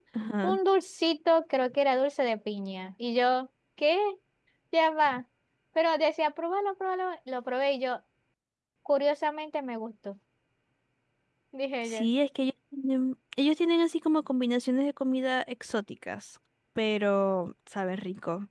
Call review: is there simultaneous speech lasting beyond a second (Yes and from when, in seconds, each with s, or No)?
No